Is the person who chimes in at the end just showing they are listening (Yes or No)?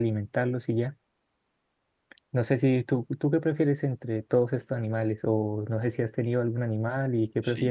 No